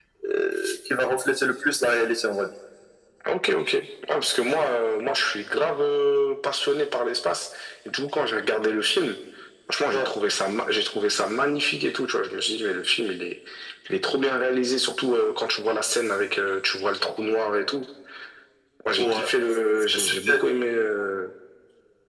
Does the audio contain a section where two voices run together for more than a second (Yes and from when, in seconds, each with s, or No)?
No